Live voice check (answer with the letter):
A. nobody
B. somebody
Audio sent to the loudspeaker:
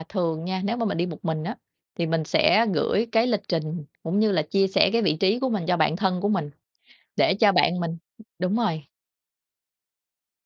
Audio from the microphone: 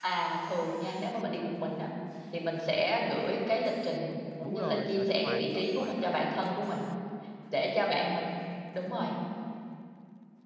B